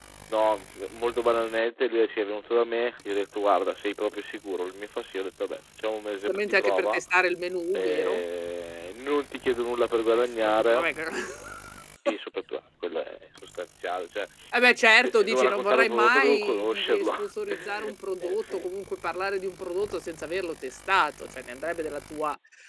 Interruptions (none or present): present